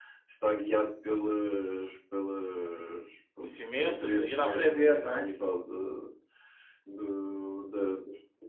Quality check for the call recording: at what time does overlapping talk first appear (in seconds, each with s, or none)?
3.4 s